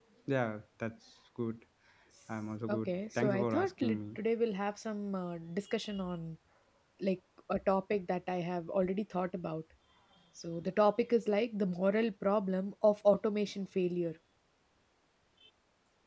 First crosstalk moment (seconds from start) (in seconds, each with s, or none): 2.7 s